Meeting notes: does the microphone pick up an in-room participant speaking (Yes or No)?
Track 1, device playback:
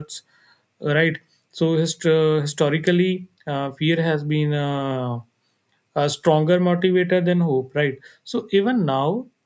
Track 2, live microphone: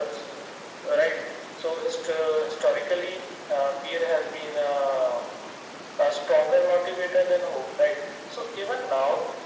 No